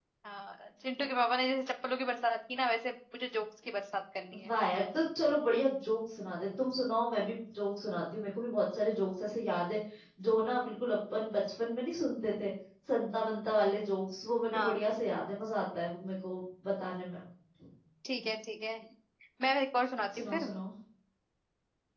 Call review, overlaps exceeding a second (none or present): none